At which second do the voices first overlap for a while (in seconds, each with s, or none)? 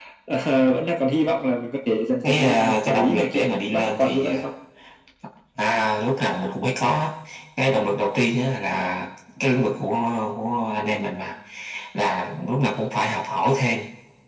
2.2 s